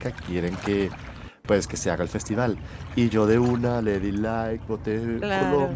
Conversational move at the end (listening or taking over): listening